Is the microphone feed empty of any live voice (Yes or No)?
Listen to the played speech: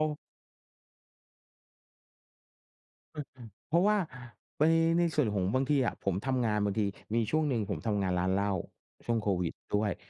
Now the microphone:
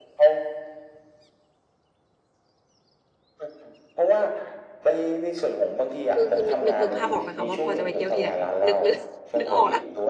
No